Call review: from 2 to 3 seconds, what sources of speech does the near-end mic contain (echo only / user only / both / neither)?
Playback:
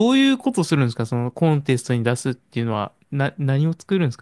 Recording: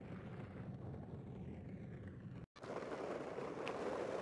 neither